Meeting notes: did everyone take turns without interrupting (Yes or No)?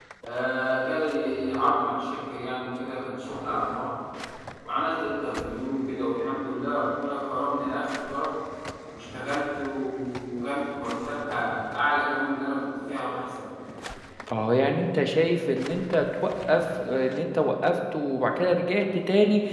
Yes